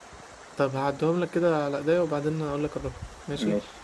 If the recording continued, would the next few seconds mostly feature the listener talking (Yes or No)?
No